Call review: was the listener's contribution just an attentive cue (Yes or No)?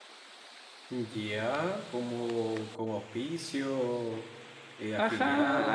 No